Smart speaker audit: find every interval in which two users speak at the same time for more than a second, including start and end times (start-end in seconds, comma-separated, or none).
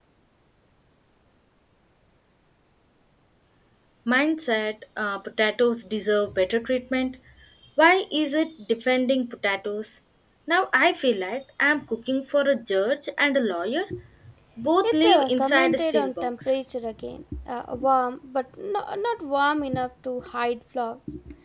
14.8-16.6